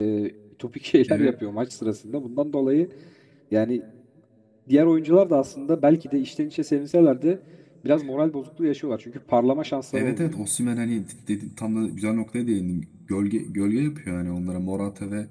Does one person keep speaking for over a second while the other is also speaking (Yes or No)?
No